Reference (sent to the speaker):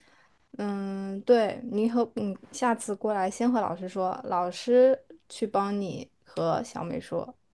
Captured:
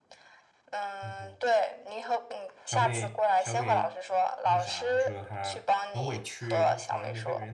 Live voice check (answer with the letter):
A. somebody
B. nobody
A